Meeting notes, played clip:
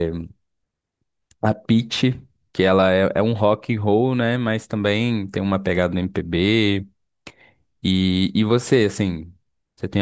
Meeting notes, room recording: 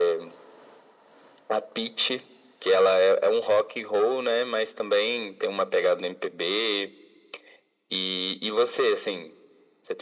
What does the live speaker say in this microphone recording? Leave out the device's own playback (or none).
none